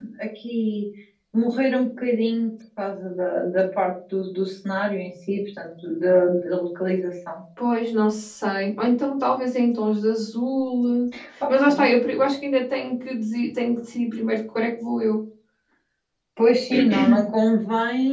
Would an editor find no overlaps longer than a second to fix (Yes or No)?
Yes